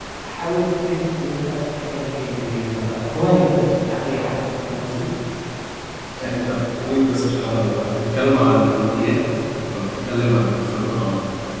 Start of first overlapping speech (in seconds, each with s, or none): none